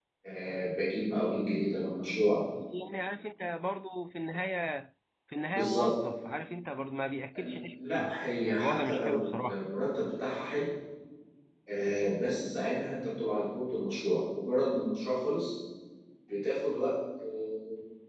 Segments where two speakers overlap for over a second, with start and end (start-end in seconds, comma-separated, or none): 7.9-9.6